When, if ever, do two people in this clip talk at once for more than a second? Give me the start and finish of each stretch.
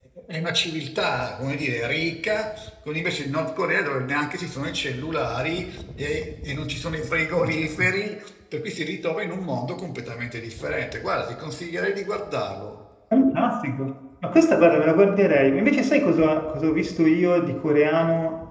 none

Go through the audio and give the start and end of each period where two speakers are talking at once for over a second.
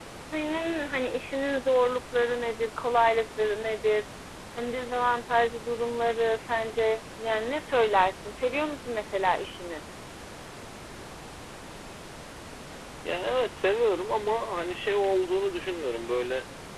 none

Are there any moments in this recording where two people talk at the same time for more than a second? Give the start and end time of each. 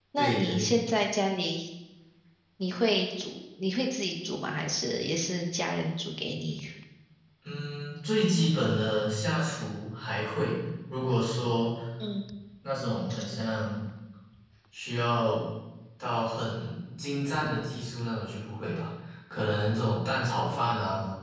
none

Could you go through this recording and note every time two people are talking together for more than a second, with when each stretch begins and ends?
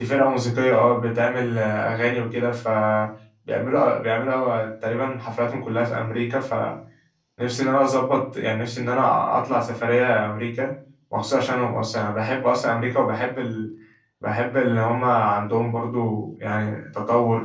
none

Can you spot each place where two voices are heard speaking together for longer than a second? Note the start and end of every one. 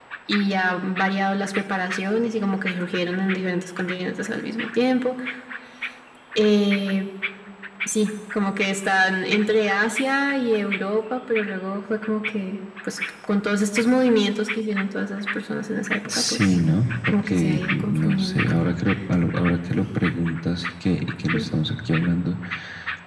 17.1-18.4

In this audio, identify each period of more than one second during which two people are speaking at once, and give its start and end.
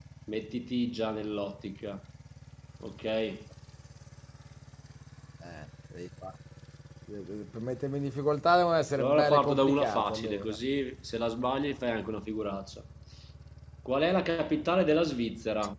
9.0-10.6

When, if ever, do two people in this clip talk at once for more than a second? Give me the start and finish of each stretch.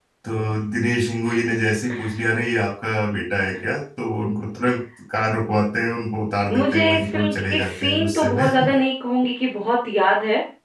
6.5-8.4

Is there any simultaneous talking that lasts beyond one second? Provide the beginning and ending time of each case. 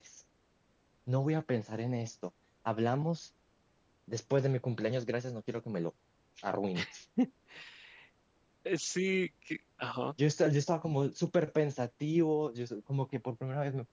none

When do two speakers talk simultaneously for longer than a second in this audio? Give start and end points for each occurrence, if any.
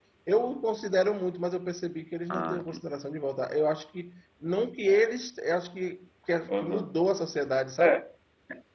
none

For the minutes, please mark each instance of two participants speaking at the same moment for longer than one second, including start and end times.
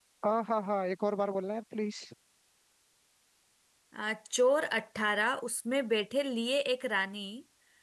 none

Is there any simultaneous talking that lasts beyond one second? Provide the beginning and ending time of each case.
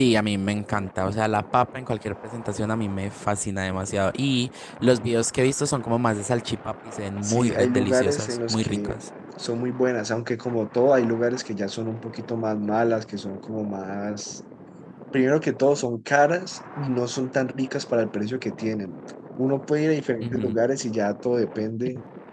7.2-9.0

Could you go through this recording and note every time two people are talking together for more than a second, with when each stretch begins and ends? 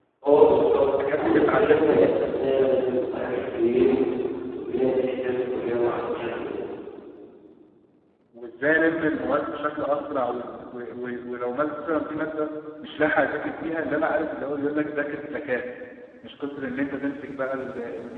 0.8-2.7

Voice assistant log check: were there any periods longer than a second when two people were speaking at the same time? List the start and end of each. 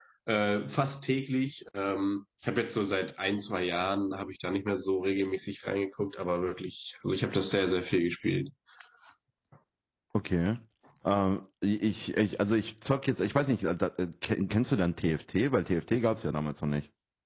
none

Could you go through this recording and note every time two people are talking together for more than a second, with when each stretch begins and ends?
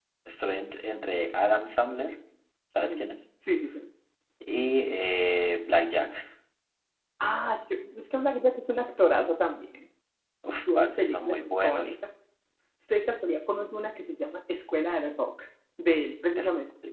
10.5-11.9

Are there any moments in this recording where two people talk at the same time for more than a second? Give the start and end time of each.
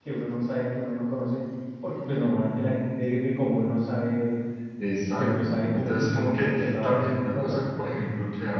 5.2-7.6

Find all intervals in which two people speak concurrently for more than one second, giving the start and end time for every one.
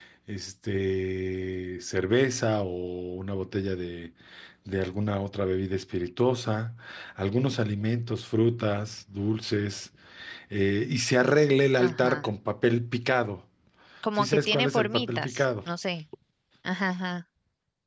14.2-15.4

